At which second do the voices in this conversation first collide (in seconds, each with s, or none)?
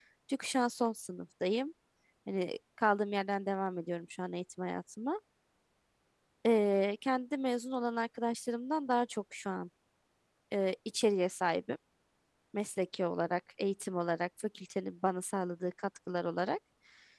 none